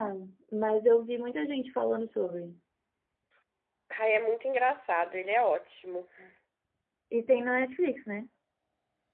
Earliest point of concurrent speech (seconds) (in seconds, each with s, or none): none